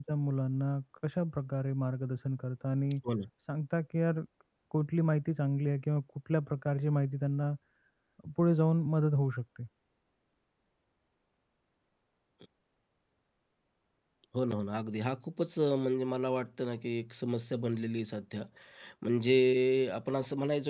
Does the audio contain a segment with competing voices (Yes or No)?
No